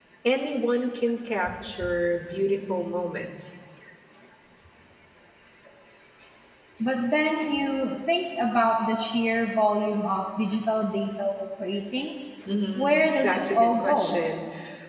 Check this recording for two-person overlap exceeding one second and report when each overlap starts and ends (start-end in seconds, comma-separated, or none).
12.8-14.2